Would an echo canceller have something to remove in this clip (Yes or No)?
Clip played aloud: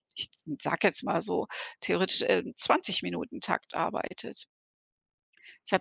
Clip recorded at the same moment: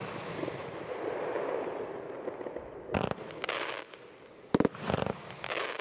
No